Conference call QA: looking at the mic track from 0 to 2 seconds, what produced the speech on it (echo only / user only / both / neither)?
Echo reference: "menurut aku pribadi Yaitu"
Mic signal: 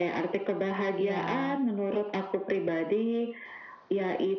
both